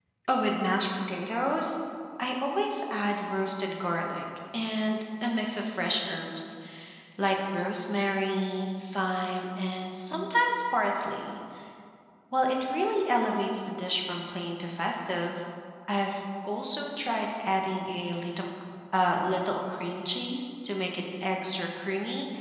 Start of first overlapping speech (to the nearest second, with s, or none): none